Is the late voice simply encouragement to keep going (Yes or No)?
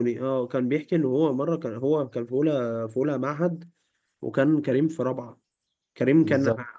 Yes